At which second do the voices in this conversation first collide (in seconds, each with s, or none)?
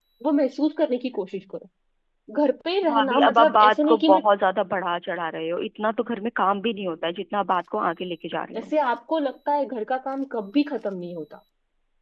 2.9 s